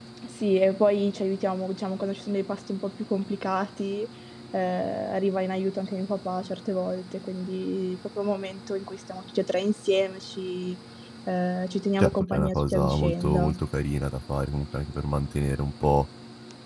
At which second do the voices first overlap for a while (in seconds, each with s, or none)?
12.0 s